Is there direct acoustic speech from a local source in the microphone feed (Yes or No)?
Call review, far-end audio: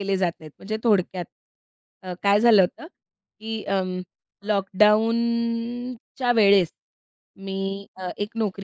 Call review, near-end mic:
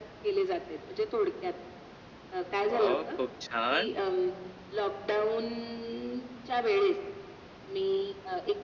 Yes